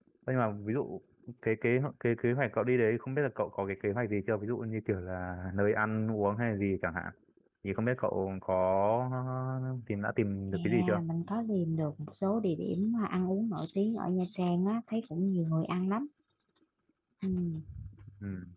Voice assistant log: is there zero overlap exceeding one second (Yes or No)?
Yes